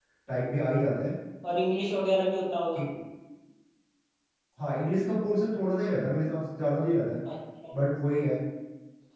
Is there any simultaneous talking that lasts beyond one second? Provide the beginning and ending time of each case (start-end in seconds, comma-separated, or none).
none